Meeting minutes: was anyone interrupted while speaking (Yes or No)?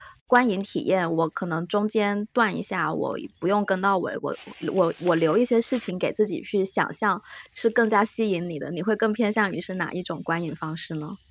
No